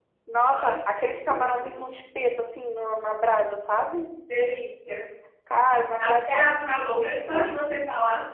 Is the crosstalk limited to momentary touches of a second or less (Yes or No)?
No